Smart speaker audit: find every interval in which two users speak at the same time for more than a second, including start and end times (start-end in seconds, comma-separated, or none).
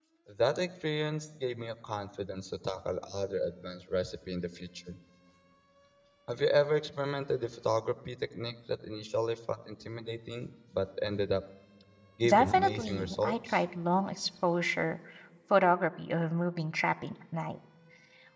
12.3-13.6